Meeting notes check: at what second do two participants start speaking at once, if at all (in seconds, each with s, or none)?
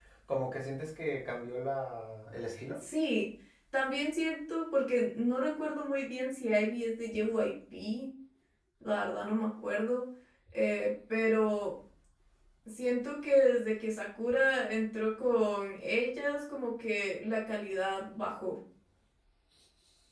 none